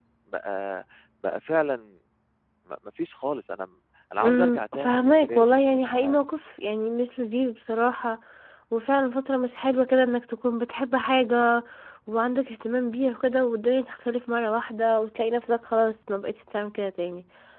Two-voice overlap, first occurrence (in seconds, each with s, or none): 4.2 s